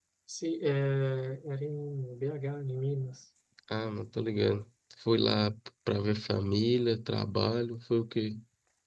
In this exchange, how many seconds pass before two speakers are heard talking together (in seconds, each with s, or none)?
none